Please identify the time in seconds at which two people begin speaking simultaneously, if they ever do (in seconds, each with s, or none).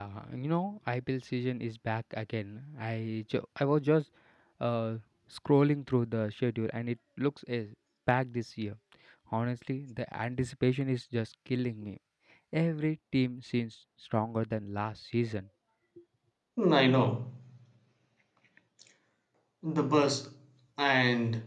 none